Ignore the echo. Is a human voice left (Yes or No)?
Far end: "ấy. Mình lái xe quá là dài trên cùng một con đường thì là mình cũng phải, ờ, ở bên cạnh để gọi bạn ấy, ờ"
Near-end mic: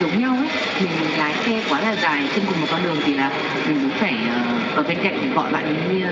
No